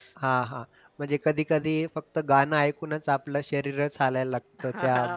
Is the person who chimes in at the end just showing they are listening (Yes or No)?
No